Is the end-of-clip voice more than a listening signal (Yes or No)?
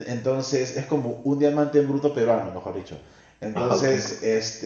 No